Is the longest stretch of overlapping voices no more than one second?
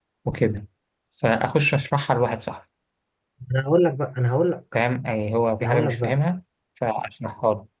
Yes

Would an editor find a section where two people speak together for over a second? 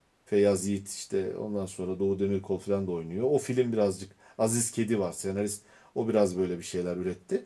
No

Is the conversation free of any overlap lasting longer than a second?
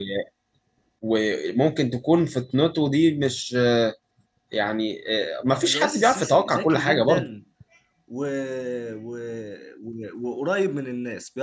No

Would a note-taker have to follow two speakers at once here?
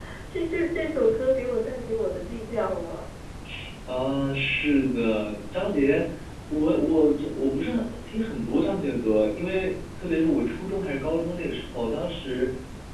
No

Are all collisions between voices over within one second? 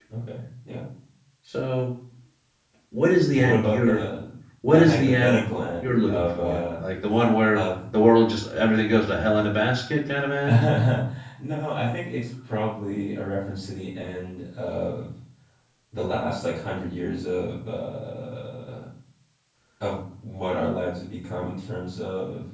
No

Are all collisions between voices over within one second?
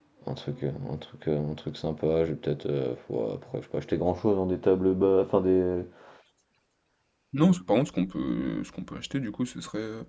Yes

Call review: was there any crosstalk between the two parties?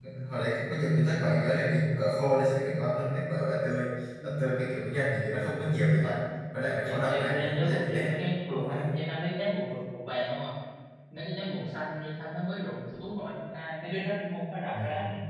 Yes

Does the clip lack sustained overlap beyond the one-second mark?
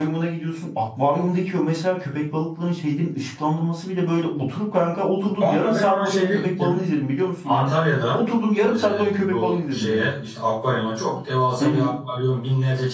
No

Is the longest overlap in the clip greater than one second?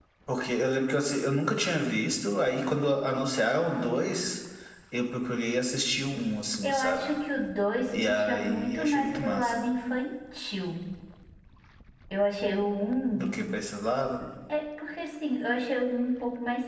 Yes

